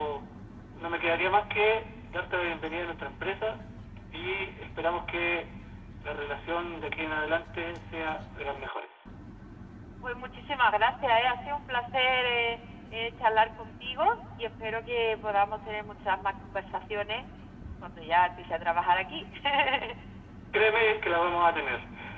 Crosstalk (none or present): none